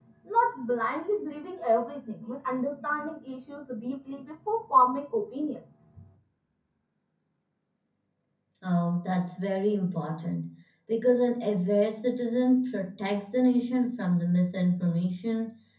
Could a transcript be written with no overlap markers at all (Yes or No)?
Yes